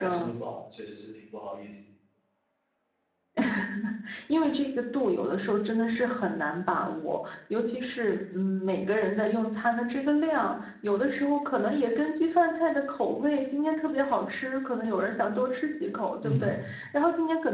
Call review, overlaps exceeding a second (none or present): none